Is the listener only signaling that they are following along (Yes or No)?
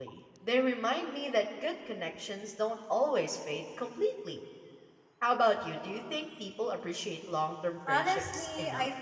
No